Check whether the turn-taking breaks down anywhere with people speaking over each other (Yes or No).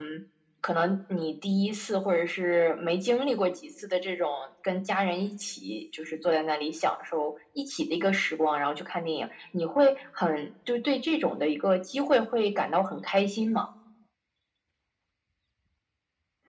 No